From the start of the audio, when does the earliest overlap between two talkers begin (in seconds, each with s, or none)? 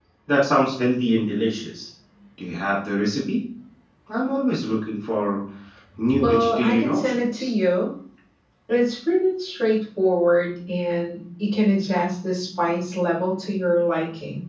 6.2 s